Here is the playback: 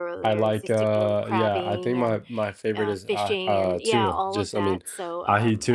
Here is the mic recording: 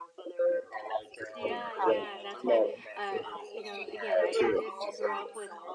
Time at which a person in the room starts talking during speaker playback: 1.3 s

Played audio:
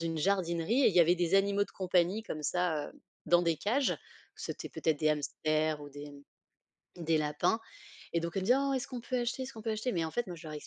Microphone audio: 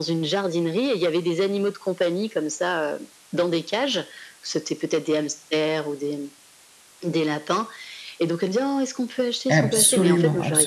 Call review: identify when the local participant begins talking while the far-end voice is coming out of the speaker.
9.5 s

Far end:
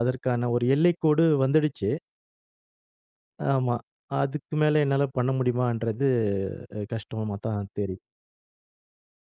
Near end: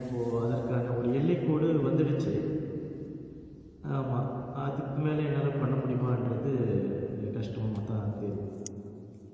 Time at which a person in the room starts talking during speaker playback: none

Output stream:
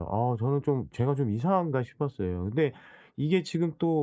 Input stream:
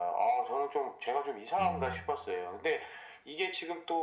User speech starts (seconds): 1.6 s

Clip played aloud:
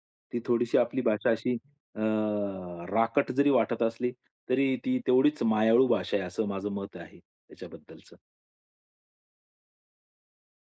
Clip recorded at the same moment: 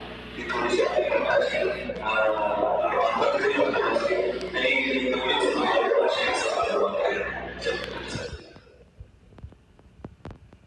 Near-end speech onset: none

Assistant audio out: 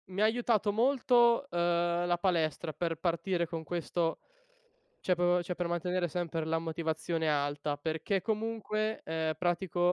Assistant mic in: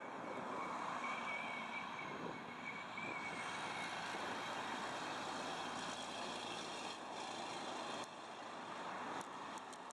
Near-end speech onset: none

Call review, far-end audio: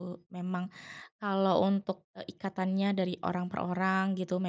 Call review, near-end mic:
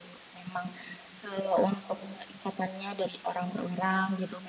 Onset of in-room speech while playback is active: none

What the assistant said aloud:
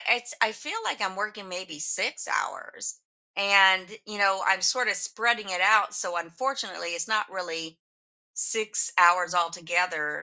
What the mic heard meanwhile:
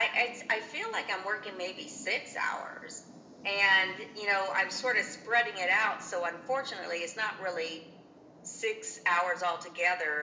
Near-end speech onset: none

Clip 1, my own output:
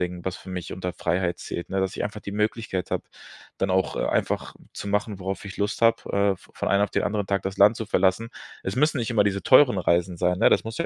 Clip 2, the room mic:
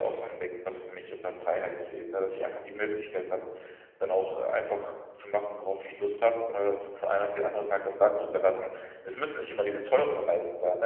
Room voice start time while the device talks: none

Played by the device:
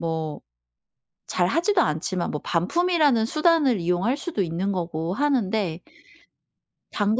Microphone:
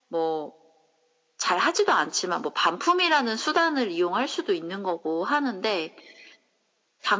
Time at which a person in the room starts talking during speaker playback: none

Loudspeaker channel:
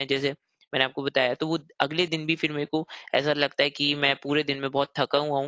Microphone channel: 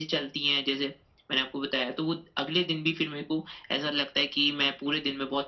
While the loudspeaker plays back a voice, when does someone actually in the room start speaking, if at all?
none

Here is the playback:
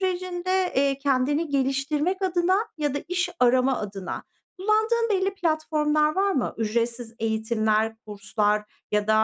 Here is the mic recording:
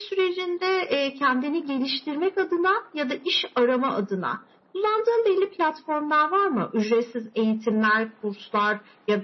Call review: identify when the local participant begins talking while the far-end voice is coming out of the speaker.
none

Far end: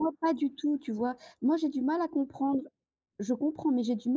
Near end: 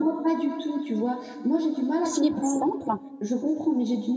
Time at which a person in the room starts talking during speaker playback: 2.0 s

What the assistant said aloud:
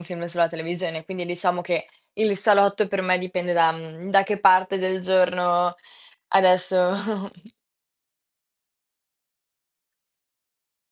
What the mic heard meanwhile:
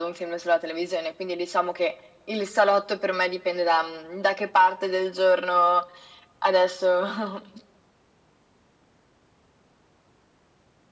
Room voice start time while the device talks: none

